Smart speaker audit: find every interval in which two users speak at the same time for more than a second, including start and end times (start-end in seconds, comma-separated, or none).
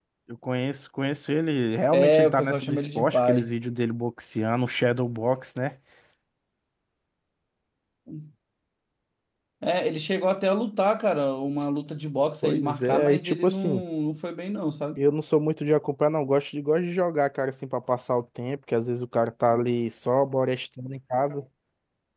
1.9-3.5, 12.4-13.8